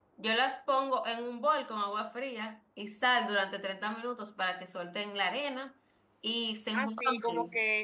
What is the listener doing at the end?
taking over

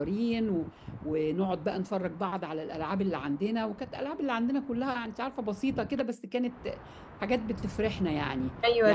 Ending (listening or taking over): taking over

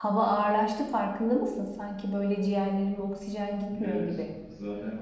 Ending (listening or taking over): taking over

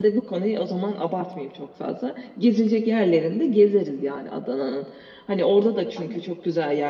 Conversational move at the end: listening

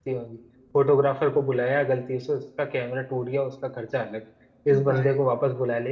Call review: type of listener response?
listening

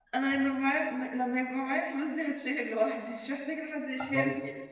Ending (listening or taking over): taking over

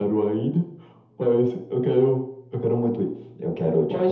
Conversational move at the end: taking over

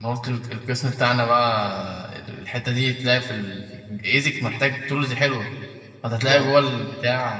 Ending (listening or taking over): listening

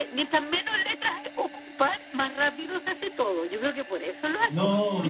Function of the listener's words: taking over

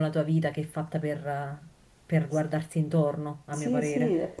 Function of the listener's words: taking over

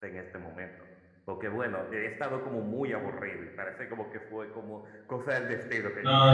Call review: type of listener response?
taking over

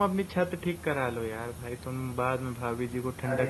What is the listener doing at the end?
taking over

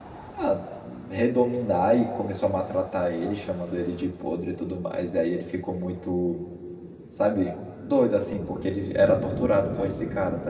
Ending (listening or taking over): listening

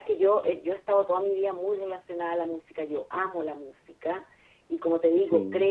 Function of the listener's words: listening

